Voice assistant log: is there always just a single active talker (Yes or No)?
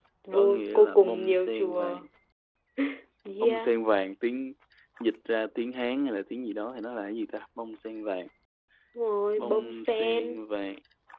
No